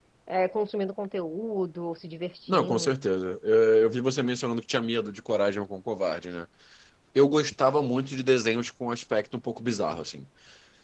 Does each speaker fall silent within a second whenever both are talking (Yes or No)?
Yes